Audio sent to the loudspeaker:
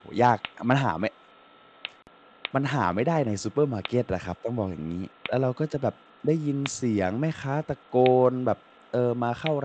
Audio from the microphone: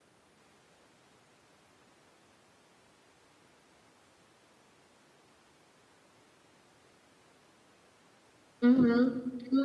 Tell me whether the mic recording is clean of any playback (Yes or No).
Yes